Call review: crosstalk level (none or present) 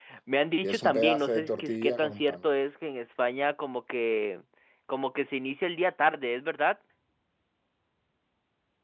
present